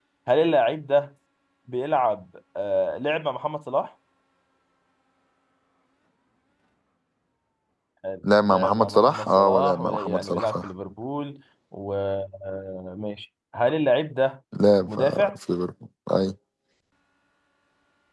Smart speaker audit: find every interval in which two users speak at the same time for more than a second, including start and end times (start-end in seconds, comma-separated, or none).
8.4-10.7